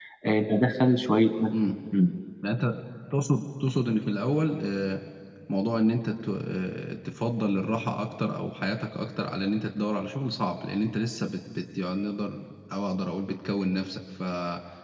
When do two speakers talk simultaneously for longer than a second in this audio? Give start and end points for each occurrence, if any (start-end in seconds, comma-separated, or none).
none